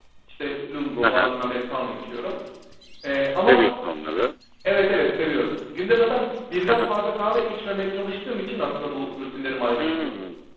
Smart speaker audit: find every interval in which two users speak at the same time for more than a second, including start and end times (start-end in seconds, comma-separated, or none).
none